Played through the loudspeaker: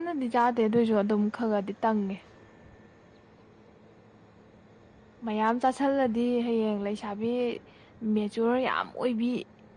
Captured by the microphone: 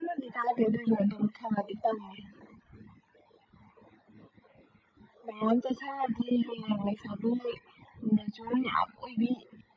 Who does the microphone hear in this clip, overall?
echo only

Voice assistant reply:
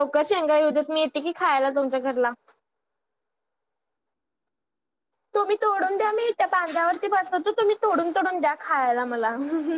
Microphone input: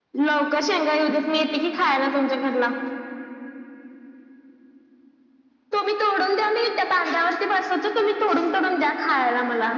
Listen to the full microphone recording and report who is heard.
echo only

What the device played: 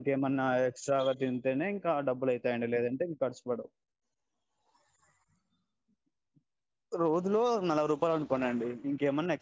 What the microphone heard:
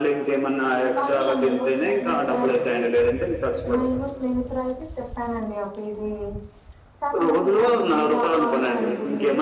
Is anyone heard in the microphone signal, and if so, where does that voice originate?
both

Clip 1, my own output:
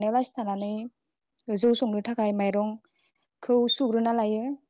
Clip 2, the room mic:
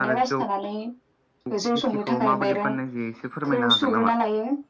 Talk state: both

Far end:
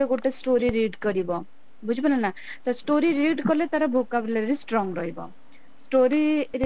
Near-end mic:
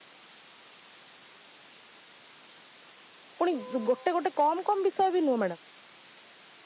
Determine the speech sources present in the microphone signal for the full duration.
user only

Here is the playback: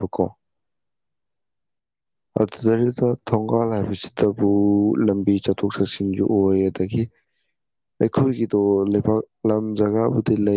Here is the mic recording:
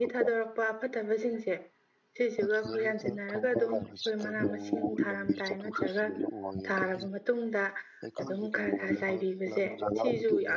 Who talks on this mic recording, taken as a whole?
both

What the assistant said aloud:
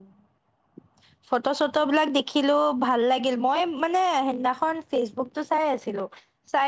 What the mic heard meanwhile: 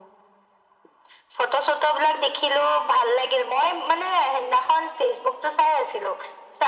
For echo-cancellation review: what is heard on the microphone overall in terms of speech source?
echo only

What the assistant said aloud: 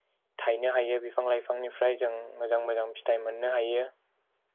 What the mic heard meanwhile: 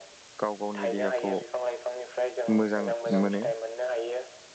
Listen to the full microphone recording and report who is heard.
both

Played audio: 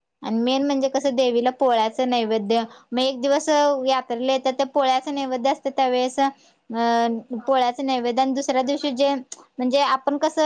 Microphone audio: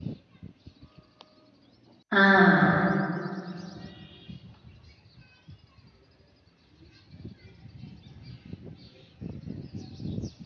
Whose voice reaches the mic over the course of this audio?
user only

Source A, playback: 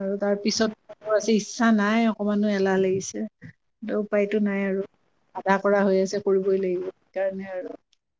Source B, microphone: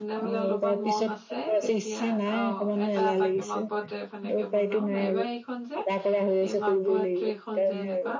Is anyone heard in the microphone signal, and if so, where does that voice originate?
both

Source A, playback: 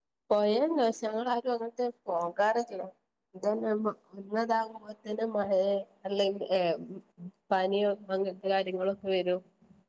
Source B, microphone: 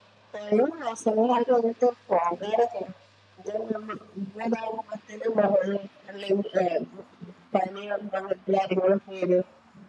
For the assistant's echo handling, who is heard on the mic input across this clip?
echo only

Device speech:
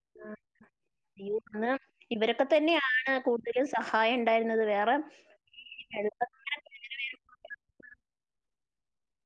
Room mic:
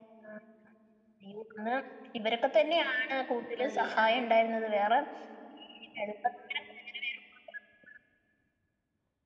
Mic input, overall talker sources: both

